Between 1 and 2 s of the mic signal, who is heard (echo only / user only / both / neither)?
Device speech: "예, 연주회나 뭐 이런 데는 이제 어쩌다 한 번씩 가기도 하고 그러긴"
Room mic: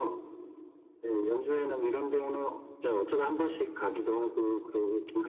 echo only